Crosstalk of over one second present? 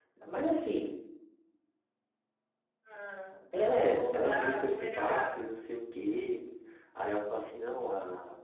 Yes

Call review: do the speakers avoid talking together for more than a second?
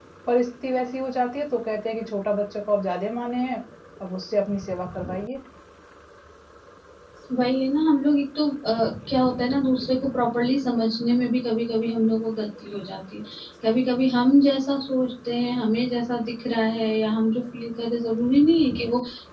Yes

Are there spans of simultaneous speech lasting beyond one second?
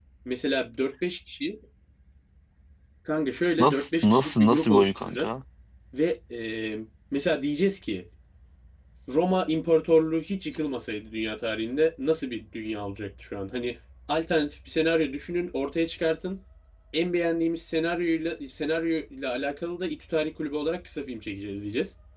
Yes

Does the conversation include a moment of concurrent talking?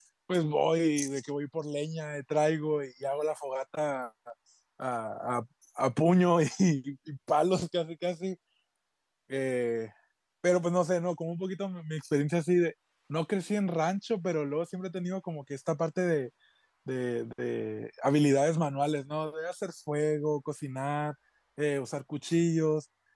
No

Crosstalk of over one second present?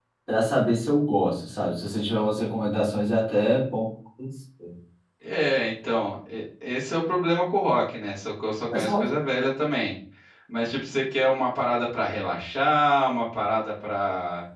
No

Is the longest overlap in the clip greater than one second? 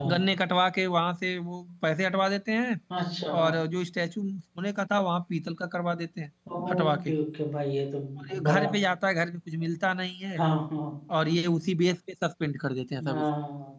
No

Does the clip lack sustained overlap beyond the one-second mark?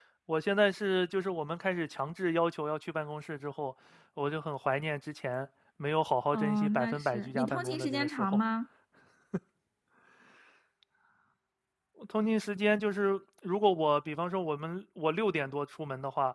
No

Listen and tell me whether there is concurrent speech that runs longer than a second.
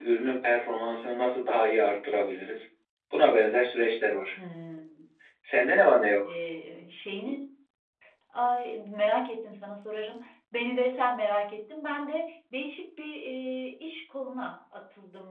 No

